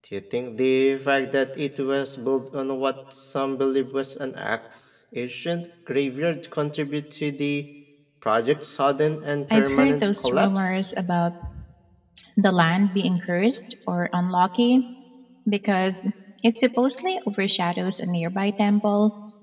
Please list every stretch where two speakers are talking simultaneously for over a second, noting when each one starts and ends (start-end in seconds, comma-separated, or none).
9.5-10.8